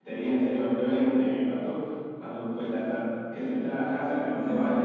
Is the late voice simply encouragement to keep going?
Yes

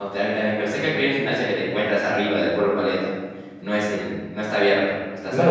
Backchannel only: No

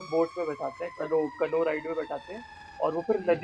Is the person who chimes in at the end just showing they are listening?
Yes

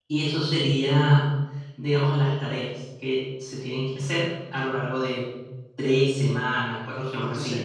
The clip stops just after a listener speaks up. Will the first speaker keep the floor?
No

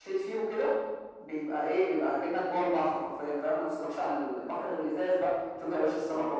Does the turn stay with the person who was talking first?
Yes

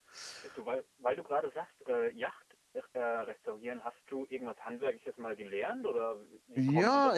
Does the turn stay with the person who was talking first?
No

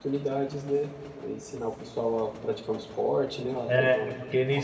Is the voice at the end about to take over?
Yes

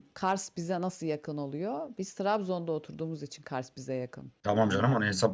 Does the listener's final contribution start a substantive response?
Yes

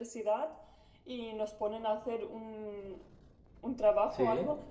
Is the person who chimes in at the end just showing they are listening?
Yes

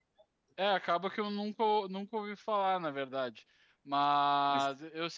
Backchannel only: Yes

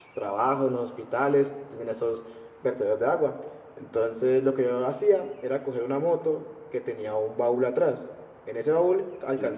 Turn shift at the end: No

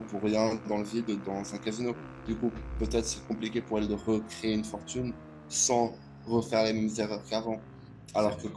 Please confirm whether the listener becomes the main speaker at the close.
No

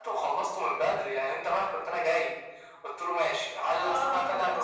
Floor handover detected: No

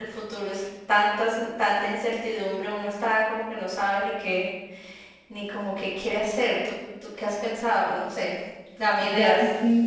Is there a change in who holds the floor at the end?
Yes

